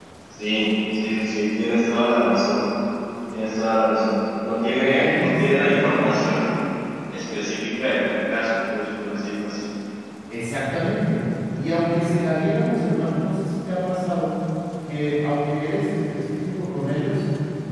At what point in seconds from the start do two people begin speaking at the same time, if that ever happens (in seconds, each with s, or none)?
4.8 s